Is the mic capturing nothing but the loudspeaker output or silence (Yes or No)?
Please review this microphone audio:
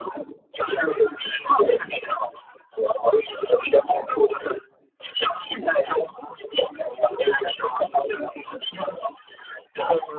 Yes